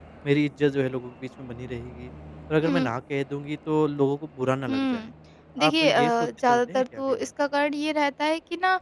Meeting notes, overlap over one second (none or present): present